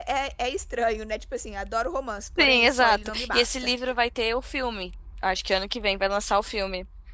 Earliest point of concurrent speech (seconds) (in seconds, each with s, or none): 2.4 s